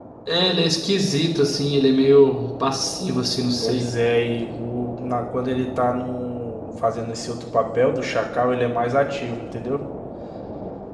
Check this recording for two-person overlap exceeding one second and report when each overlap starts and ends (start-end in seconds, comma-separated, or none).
none